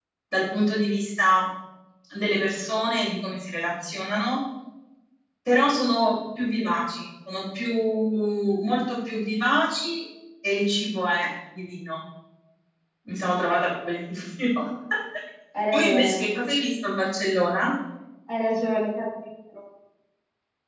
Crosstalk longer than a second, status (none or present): none